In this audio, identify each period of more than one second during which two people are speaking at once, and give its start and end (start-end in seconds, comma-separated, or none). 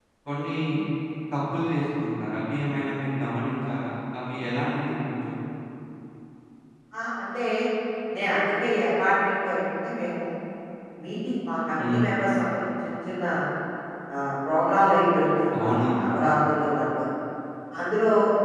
none